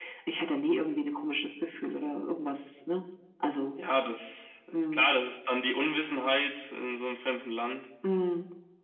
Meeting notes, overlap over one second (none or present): none